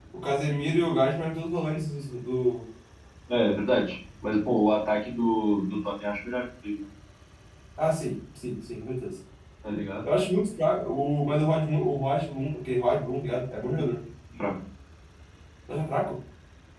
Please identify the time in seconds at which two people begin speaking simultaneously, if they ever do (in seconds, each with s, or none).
none